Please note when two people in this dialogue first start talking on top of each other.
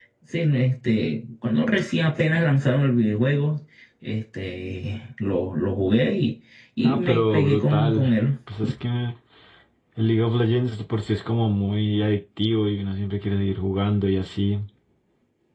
6.8 s

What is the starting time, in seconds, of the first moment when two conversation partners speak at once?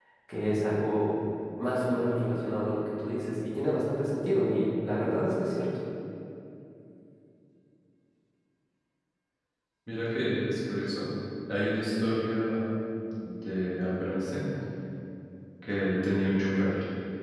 none

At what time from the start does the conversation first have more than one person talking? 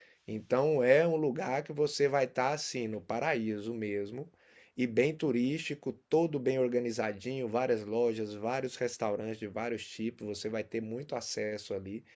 none

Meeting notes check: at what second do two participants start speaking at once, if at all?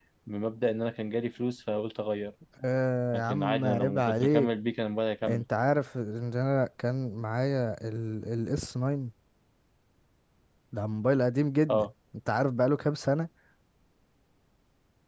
3.1 s

